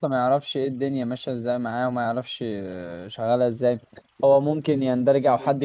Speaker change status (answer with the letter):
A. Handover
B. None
B